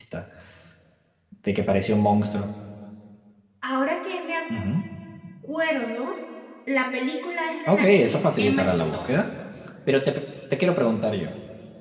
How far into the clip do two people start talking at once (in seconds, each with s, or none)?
7.6 s